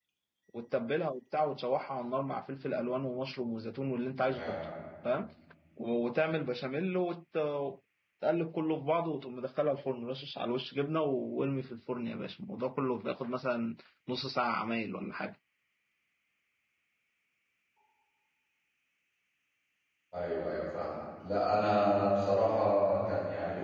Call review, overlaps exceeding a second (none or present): none